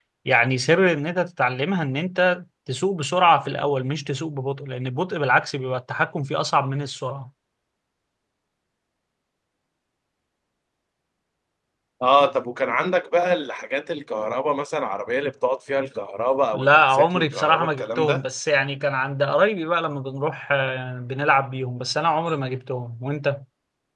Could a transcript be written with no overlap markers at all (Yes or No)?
No